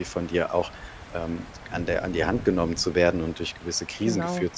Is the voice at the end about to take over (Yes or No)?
No